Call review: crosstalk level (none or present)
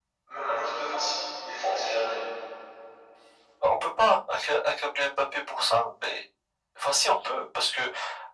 none